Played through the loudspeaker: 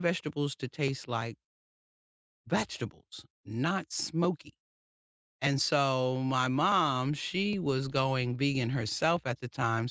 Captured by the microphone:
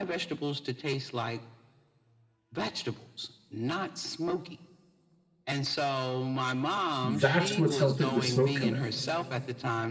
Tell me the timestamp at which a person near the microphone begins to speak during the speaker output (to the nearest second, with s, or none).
7 s